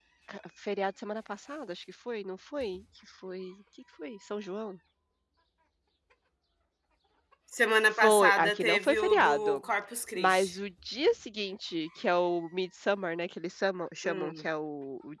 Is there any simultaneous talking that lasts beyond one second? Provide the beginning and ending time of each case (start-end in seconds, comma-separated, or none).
7.9-9.6